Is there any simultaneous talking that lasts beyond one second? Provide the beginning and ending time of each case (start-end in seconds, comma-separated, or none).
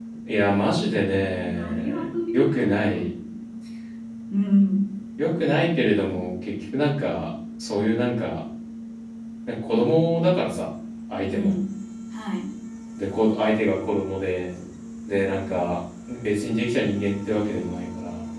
1.5-3.1